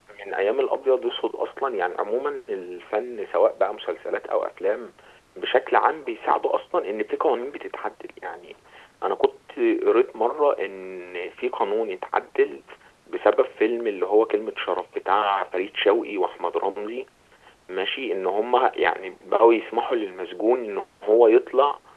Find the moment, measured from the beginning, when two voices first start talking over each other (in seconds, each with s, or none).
none